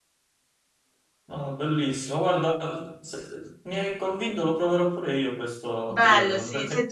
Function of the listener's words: taking over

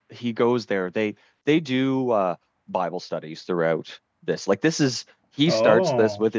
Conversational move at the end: listening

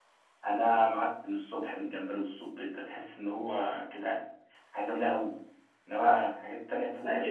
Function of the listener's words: taking over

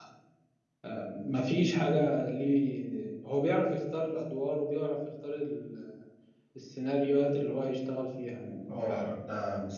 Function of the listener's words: taking over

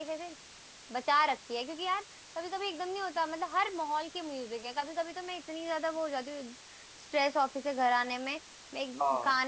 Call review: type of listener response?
listening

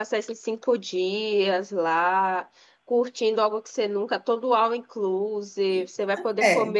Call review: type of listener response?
listening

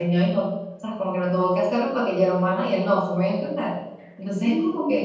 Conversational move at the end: listening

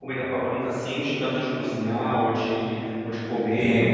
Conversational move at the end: taking over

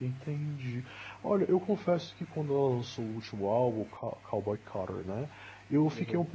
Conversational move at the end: listening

